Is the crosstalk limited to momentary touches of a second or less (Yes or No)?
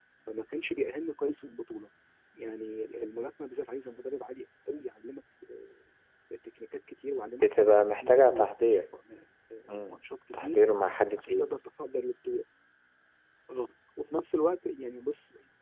No